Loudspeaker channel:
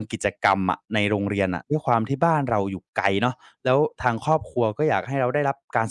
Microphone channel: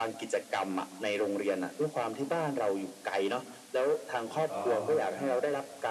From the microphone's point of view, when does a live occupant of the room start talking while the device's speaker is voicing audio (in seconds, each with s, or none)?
4.2 s